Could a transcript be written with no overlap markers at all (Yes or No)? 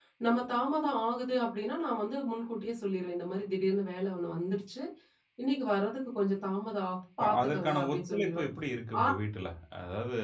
No